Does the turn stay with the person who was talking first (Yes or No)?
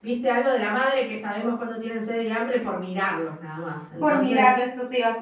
No